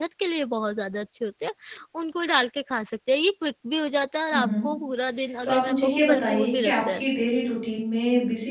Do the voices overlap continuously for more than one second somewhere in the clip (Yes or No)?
Yes